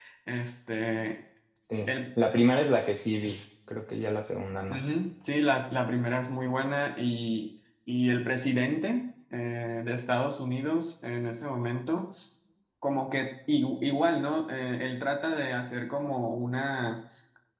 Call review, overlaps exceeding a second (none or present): none